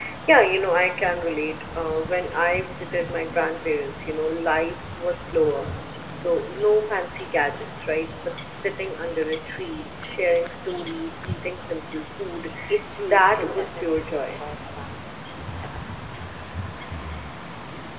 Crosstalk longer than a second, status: present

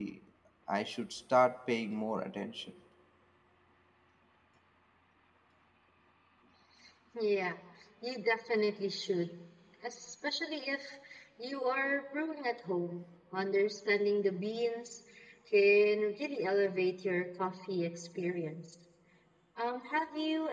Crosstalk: none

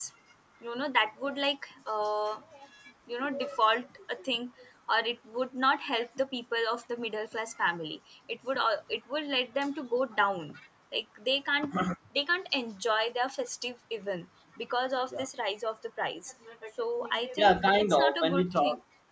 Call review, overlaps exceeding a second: present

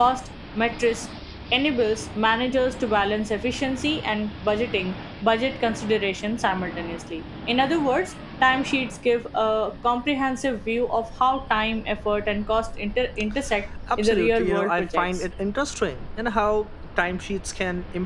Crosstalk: present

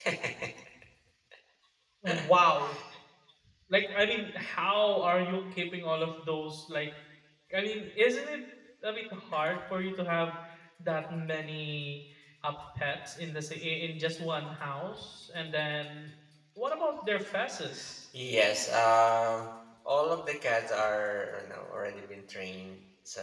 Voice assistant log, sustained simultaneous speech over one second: none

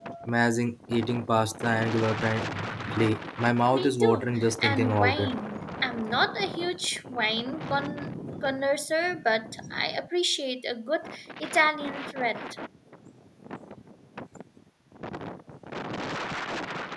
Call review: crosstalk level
present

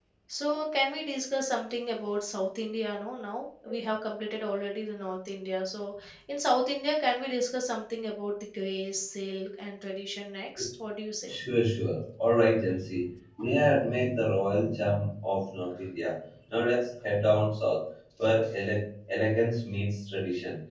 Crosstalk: none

